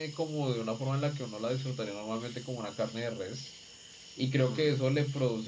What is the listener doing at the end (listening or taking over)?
listening